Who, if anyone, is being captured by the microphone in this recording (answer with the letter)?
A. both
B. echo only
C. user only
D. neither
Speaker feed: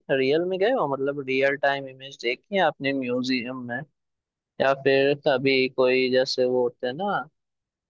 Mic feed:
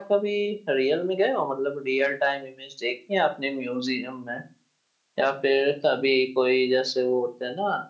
B